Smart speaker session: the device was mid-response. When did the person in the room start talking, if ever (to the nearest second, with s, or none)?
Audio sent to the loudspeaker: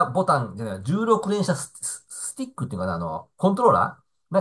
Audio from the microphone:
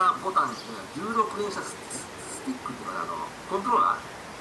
none